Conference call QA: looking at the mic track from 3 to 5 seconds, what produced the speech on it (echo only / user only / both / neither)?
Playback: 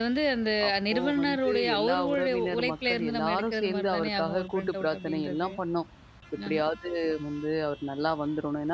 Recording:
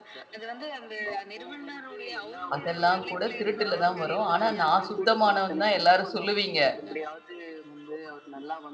both